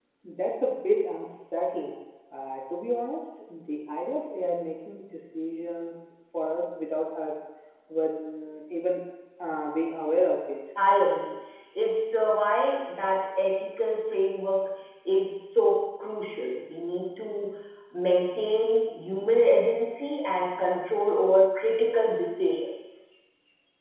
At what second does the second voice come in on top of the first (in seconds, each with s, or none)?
none